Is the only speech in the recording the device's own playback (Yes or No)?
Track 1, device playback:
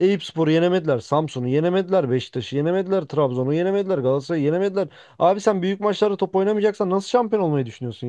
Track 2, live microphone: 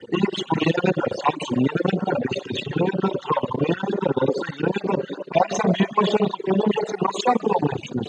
Yes